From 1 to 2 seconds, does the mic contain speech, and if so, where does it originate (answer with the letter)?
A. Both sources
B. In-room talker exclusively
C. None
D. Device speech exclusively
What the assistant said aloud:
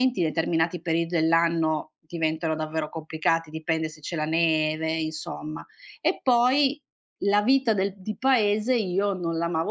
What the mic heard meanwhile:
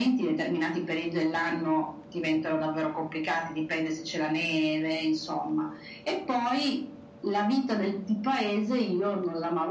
D